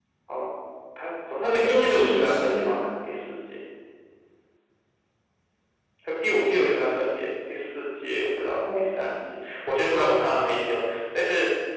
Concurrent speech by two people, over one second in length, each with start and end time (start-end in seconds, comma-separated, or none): 1.4-2.8